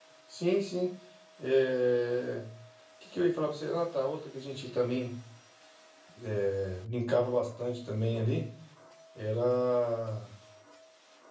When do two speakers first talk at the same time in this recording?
none

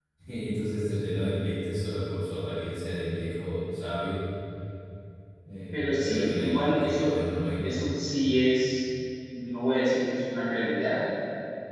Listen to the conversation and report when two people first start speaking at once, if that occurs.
5.7 s

